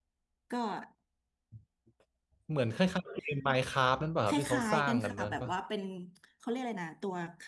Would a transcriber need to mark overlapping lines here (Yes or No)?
Yes